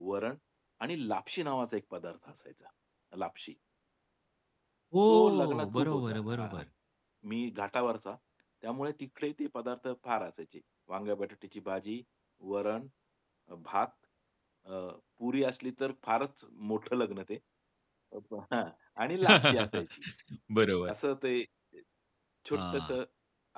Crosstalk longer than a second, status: present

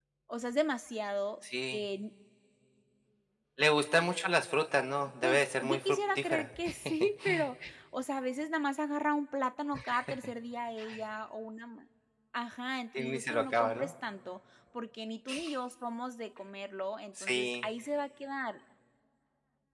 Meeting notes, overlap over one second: present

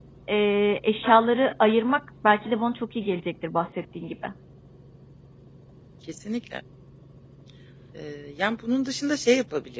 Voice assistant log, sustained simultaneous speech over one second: none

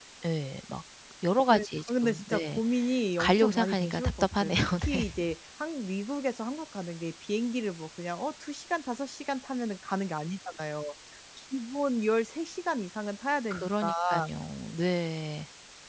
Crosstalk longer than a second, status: present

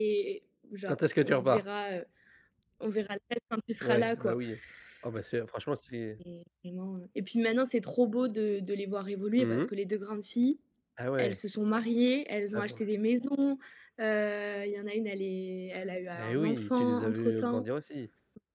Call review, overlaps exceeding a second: present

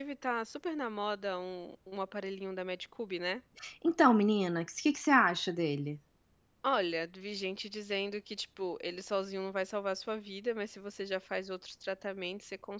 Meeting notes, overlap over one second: none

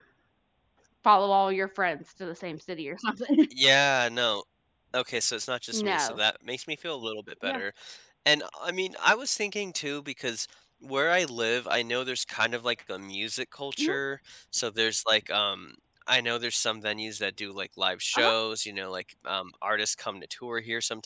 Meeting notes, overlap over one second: none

